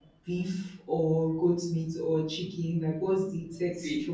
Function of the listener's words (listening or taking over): taking over